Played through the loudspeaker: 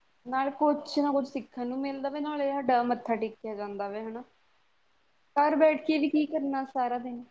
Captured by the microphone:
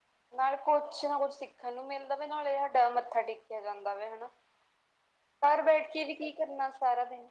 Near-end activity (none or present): none